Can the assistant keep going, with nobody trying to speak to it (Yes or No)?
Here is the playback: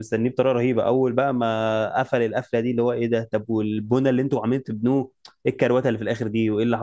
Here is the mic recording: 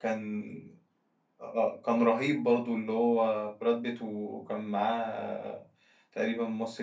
No